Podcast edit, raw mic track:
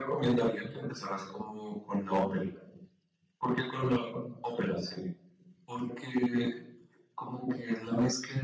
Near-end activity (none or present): none